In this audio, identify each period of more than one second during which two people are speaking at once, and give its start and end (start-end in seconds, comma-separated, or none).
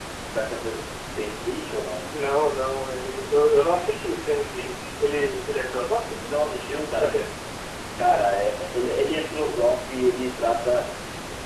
none